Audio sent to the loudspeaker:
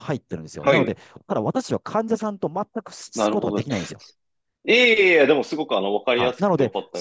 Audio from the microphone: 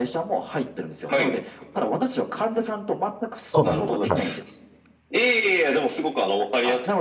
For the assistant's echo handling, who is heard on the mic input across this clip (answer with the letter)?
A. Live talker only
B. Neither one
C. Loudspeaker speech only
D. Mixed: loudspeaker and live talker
D